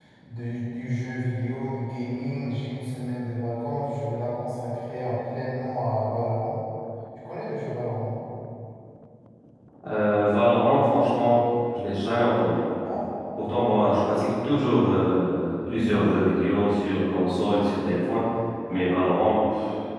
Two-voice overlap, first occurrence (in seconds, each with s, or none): none